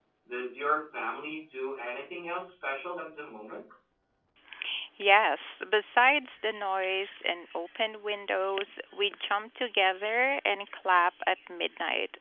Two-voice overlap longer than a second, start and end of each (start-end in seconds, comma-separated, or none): none